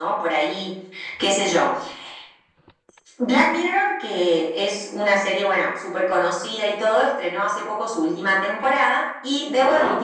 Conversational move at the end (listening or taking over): listening